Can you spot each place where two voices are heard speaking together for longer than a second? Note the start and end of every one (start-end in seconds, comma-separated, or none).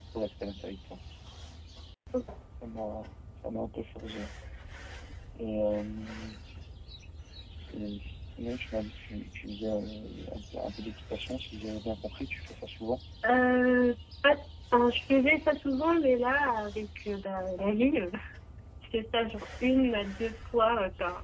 none